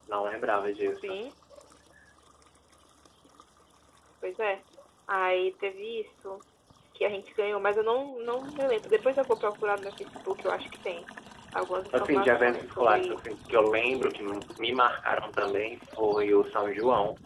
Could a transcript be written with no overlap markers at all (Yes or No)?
No